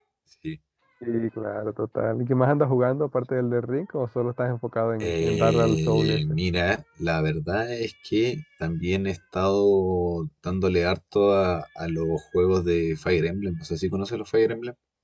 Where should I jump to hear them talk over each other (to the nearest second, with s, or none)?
5 s